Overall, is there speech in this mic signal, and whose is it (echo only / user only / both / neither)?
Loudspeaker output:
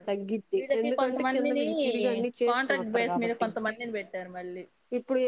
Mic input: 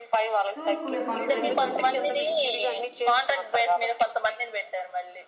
both